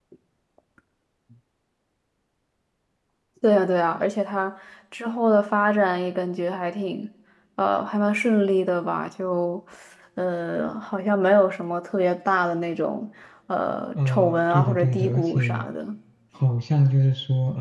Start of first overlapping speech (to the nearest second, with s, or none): 14 s